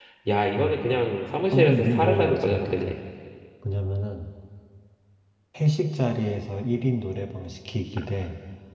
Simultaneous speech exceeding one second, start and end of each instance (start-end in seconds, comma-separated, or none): 1.5-2.8